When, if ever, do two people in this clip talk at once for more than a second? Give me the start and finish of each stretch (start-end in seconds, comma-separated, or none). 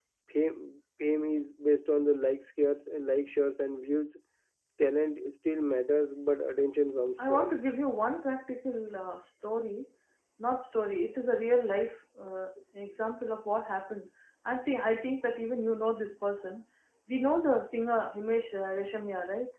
none